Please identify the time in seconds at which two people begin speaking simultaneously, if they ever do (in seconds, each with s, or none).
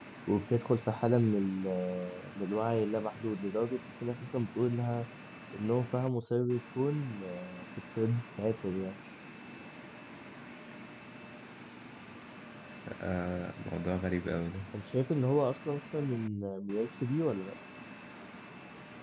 none